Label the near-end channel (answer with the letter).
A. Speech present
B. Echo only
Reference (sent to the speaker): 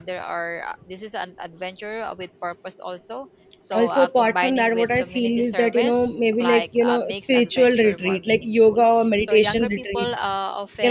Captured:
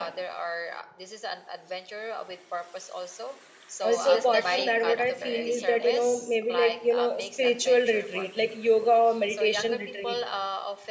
A